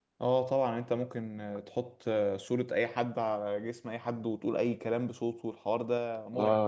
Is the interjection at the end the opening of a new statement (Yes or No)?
Yes